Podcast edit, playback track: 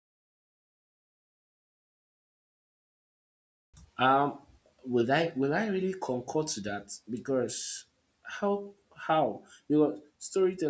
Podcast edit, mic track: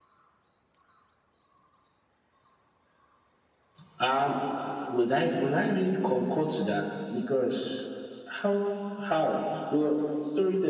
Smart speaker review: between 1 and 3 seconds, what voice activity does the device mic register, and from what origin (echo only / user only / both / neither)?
neither